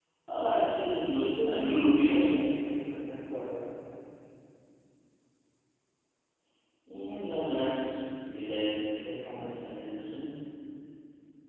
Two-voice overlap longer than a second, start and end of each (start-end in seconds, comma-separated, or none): 1.2-2.4